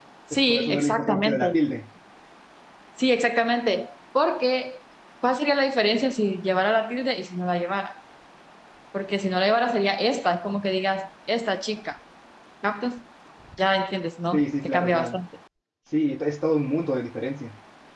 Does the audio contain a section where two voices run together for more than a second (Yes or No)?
Yes